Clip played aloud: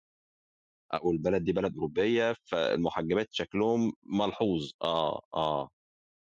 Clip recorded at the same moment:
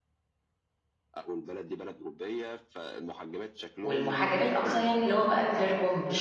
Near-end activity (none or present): present